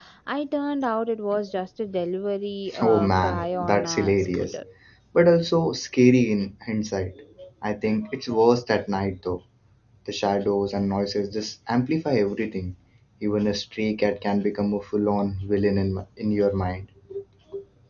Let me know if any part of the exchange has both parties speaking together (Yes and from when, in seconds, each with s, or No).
Yes, from 2.7 s